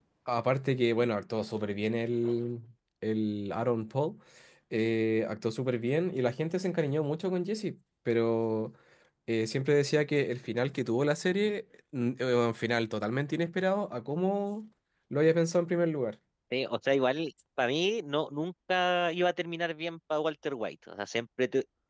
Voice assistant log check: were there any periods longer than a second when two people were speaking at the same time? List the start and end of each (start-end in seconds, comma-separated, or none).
none